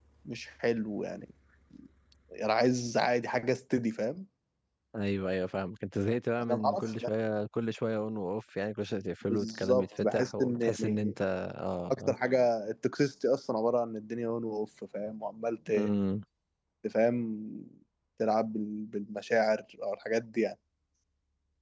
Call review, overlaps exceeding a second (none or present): present